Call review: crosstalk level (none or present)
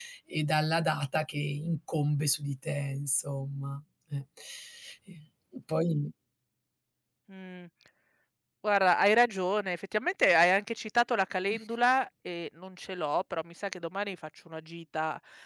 none